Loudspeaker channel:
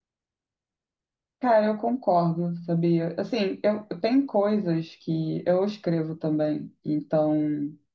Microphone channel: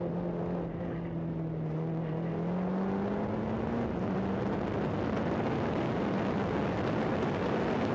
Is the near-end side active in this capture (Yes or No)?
No